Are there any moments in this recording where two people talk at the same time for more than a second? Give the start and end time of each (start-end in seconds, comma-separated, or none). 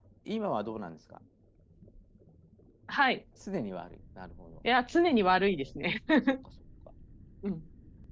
none